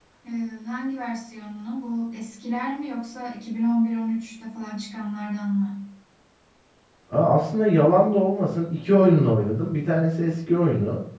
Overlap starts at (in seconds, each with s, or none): none